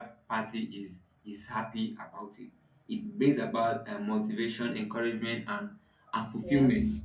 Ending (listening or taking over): listening